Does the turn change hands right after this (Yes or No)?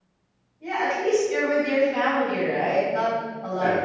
No